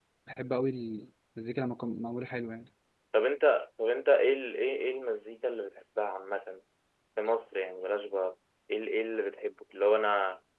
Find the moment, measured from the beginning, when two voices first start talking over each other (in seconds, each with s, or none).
none